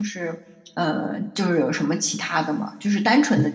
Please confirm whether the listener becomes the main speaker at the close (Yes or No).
No